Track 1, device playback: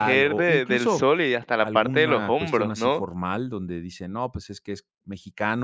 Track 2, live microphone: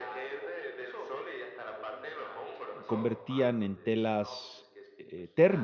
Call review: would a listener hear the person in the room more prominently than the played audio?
Yes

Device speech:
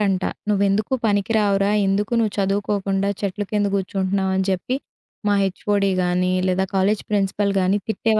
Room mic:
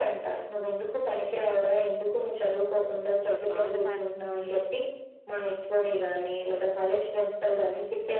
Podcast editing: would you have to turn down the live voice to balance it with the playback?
No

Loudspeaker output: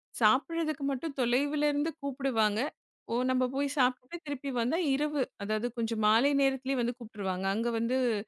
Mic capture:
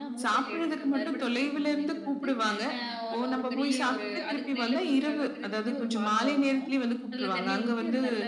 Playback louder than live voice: Yes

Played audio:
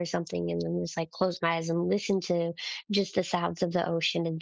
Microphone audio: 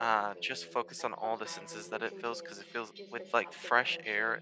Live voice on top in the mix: Yes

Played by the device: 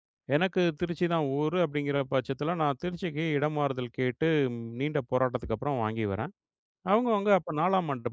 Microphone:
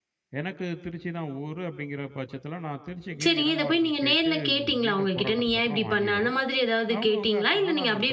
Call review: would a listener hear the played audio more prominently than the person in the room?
No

